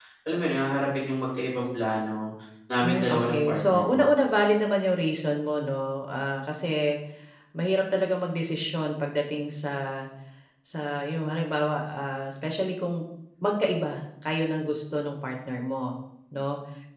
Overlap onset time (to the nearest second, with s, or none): 3 s